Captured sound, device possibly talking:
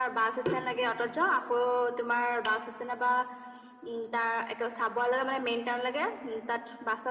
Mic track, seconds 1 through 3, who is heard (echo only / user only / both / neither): echo only